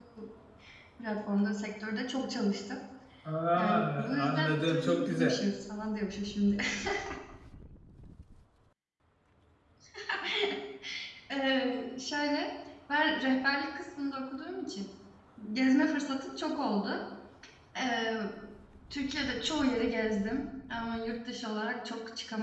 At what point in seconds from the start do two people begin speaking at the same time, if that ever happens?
4 s

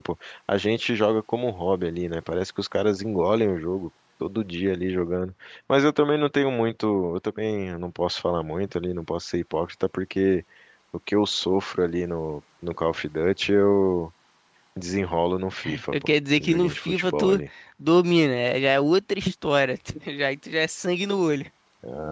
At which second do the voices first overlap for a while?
16 s

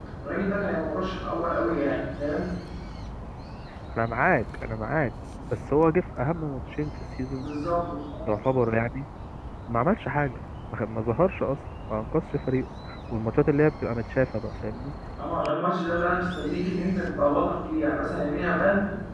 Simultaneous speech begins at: none

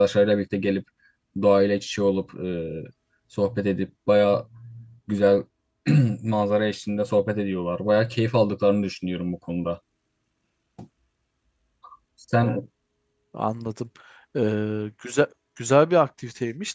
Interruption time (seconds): none

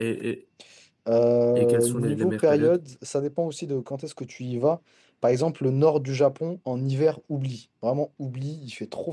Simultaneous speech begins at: 2 s

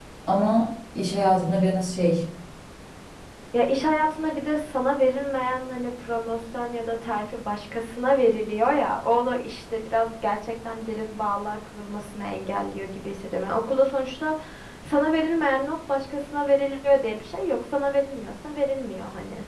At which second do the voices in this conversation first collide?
none

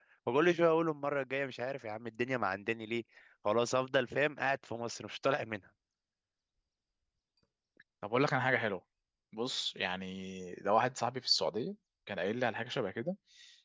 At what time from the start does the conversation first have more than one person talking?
none

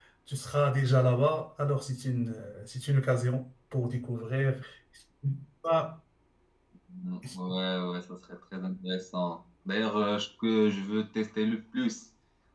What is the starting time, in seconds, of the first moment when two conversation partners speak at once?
none

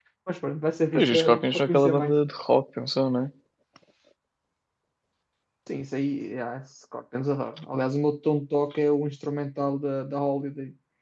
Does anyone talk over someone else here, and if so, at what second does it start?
1 s

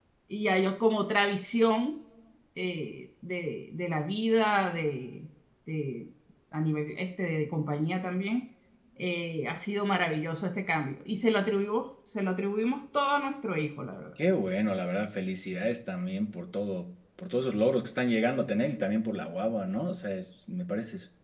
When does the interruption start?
none

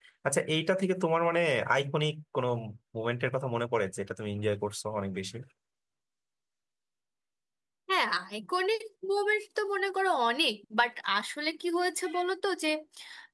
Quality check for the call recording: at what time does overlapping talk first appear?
none

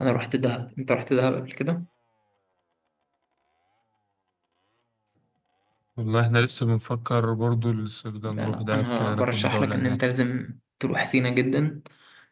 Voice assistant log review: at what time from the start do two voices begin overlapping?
8 s

